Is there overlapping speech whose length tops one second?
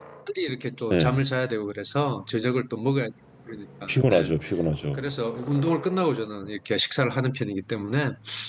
No

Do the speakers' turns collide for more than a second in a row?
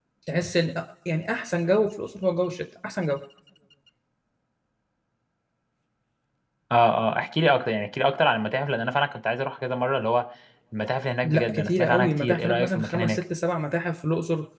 Yes, from 11.2 s

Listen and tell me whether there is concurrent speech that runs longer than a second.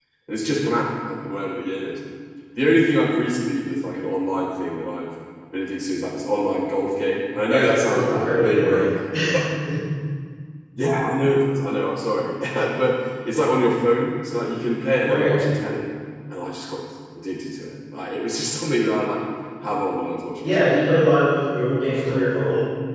Yes, from 7.5 s

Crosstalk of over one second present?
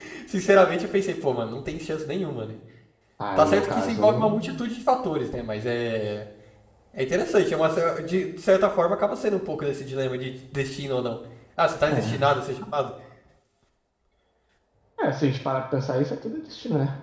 Yes, from 3.4 s

